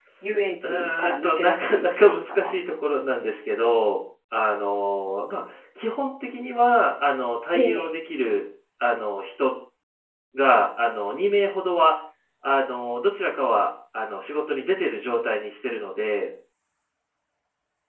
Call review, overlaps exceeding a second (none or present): present